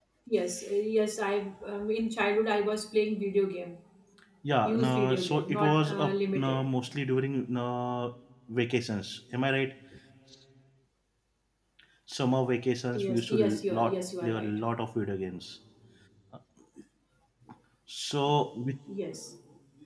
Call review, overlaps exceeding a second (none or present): present